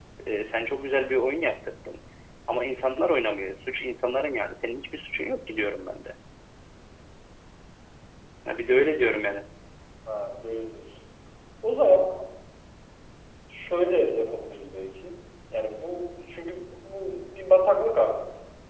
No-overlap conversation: Yes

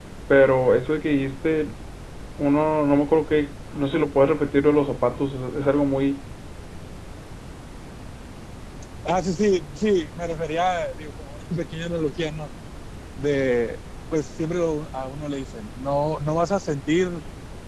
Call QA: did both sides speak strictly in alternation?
Yes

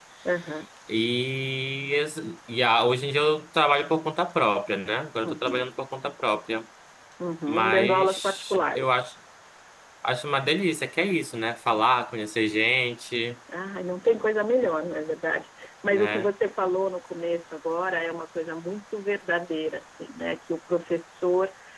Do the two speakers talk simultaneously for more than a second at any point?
Yes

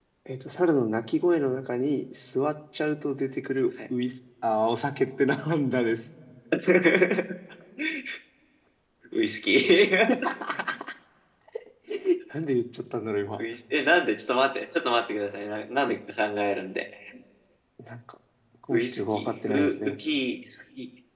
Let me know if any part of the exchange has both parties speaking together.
Yes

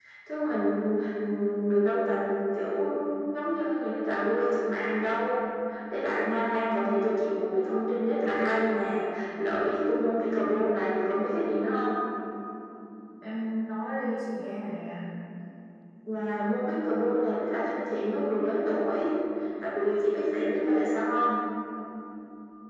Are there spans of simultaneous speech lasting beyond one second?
No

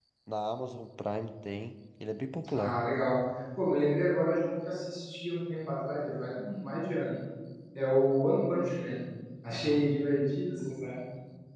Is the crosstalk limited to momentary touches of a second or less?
Yes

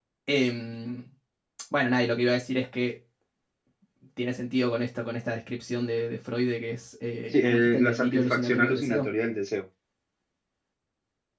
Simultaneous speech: Yes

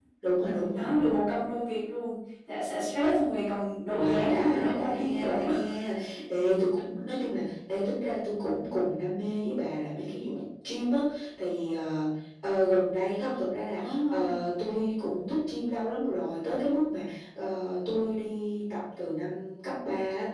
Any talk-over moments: Yes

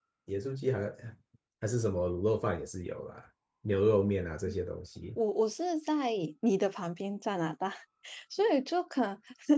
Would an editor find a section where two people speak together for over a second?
No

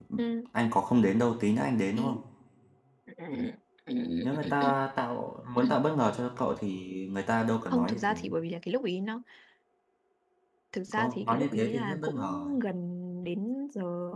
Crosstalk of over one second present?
Yes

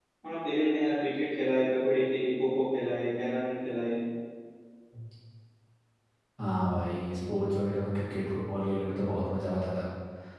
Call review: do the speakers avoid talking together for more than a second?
Yes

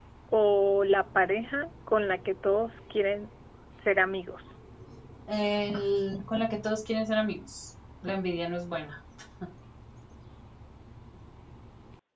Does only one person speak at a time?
Yes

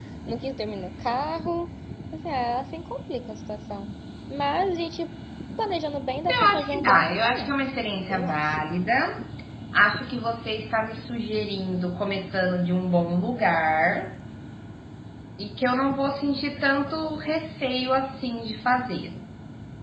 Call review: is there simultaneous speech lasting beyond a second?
Yes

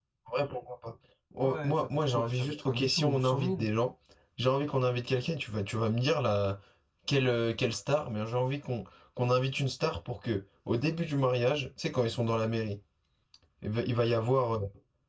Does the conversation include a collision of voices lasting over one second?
Yes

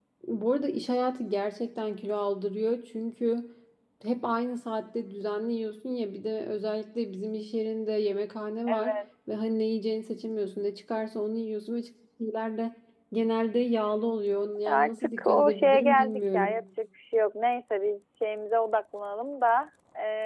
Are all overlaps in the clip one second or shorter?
No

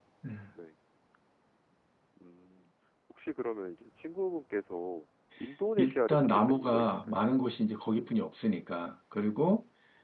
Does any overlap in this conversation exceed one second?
Yes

